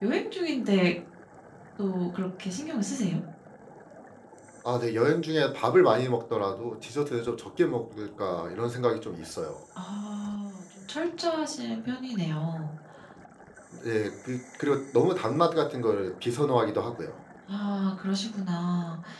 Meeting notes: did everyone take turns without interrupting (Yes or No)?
Yes